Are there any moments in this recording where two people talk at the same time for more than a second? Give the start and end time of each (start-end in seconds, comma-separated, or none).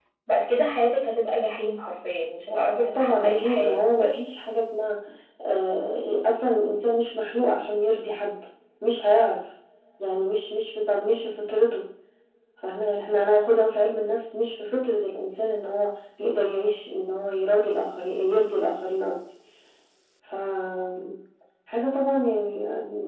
2.5-4.2